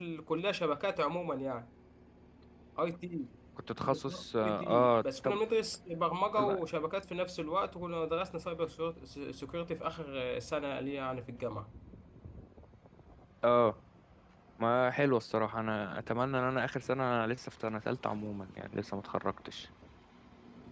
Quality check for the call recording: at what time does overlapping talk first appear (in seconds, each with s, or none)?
3.8 s